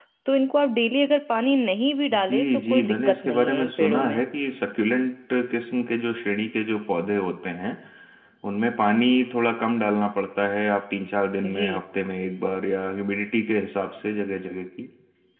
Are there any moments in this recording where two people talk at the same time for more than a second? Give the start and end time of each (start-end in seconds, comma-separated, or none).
2.1-4.2